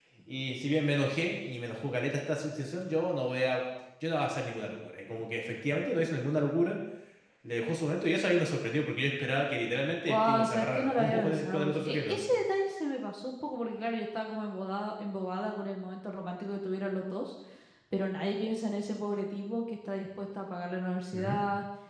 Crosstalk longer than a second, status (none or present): present